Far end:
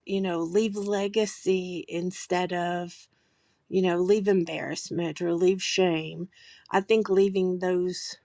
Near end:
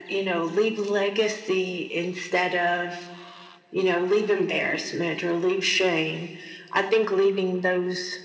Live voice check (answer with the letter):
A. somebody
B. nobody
B